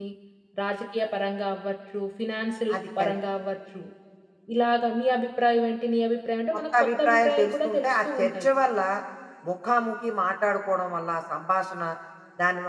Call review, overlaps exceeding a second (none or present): present